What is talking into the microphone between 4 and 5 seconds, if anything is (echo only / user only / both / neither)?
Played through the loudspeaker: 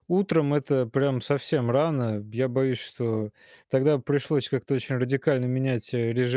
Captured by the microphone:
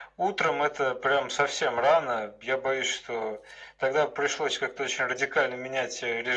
echo only